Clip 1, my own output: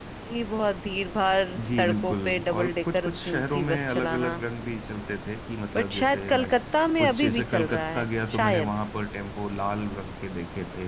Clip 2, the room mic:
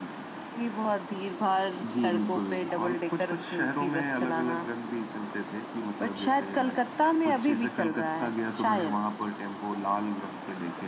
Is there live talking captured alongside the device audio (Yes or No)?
No